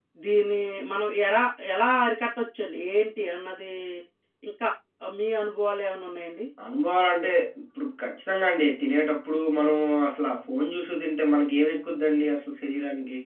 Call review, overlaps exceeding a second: none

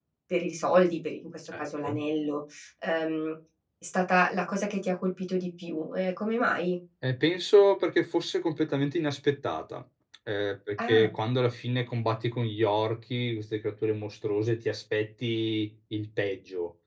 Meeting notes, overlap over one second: none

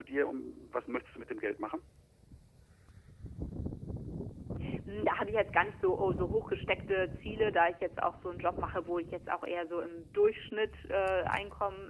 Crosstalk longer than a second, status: none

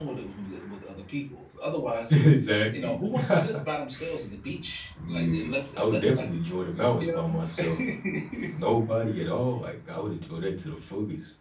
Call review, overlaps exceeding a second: present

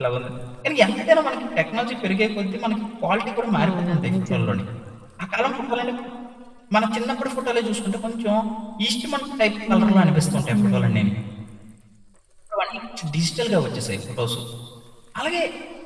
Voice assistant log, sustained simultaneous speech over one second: present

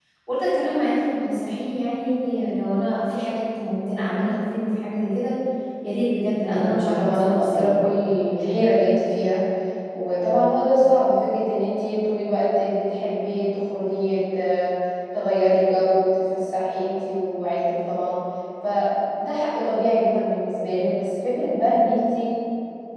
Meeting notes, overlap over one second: present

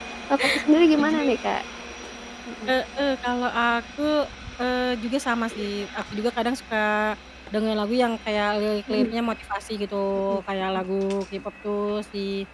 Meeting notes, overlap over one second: none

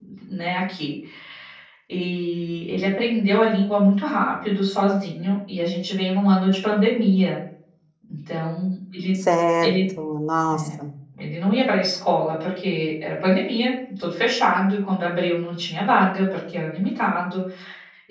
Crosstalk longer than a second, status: none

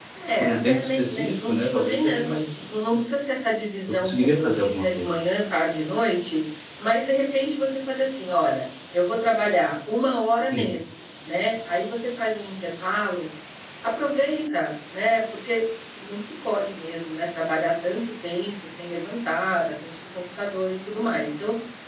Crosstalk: present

